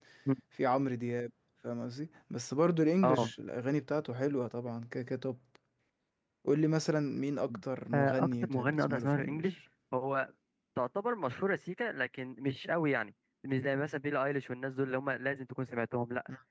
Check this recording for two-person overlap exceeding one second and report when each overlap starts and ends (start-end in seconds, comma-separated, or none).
7.9-9.5